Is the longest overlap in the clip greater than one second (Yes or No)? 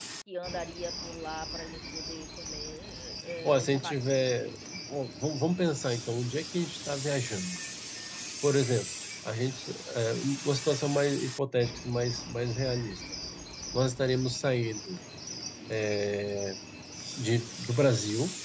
No